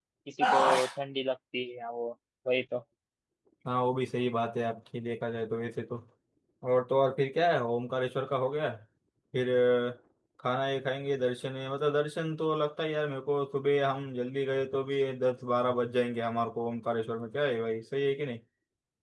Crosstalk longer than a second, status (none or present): none